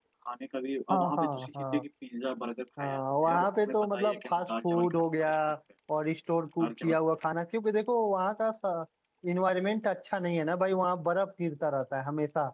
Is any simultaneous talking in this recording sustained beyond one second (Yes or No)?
Yes